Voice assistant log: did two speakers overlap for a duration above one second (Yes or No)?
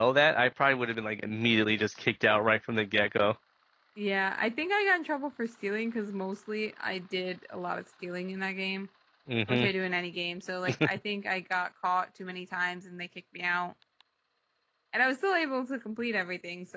No